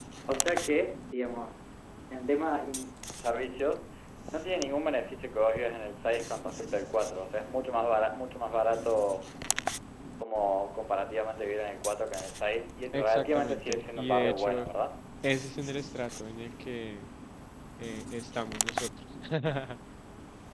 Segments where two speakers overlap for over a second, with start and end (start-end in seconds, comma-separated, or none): 12.9-14.6